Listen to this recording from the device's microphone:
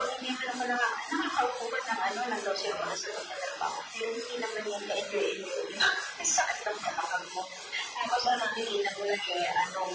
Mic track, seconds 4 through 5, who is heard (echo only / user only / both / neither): echo only